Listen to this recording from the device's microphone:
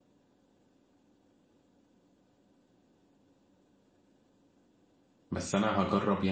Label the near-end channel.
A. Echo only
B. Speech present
B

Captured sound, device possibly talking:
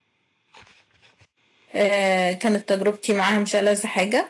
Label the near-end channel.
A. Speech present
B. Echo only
A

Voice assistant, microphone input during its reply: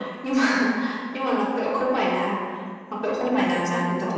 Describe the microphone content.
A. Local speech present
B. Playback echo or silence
A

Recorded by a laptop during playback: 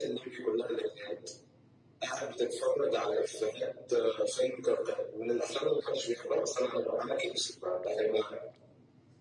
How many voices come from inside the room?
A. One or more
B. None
B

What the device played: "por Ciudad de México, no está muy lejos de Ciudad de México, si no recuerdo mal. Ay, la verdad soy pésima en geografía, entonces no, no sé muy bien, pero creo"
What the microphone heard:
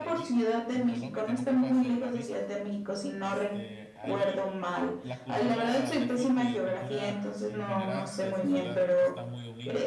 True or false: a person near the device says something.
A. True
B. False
A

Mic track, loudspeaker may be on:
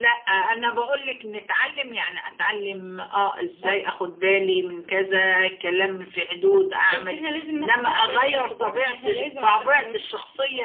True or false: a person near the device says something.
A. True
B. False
B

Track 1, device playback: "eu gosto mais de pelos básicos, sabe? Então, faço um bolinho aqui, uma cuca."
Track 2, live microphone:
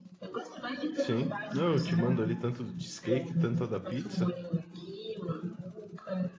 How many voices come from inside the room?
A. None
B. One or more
B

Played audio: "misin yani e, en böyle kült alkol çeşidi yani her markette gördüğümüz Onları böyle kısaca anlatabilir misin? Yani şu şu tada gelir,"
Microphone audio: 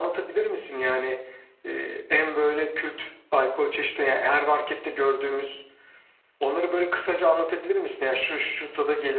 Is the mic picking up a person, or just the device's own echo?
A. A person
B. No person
B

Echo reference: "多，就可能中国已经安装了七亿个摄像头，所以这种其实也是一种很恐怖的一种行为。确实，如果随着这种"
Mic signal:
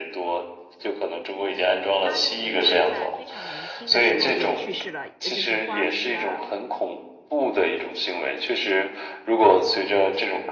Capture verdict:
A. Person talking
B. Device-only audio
A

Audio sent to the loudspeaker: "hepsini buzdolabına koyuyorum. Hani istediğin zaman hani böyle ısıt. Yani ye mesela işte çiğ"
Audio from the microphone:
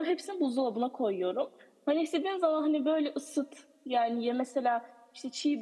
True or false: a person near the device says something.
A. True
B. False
B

